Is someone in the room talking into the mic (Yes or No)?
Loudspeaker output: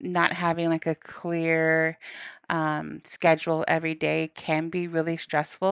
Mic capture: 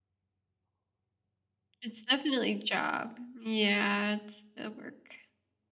Yes